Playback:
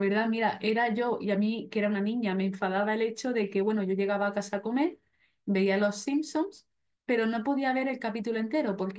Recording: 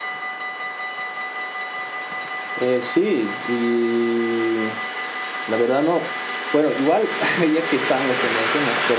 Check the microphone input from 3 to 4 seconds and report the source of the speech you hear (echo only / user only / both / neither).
user only